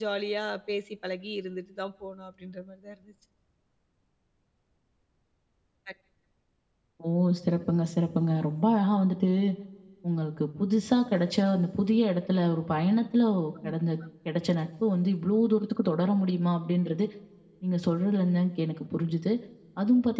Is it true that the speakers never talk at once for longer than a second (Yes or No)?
Yes